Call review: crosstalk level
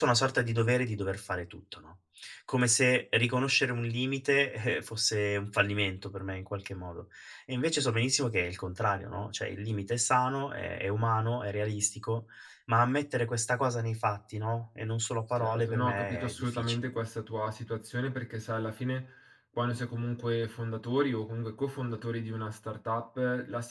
present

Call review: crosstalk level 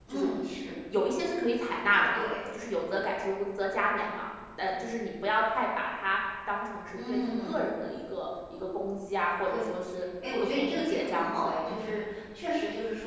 present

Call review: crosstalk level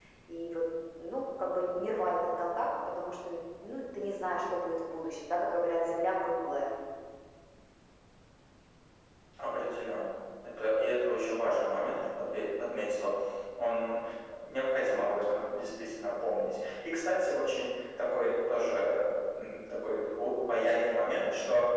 none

